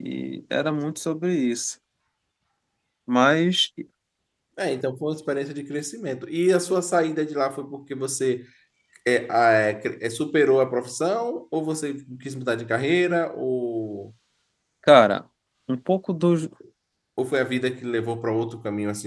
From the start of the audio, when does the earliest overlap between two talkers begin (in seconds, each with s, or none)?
none